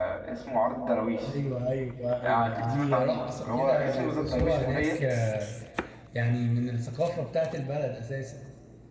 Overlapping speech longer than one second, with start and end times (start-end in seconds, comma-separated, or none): 2.2-5.0